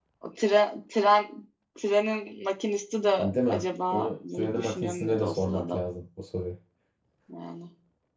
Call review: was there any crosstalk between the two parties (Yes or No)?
Yes